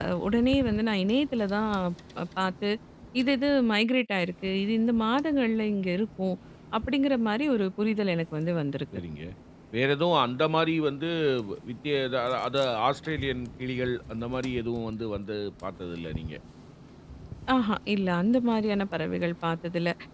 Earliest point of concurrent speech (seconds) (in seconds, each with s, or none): none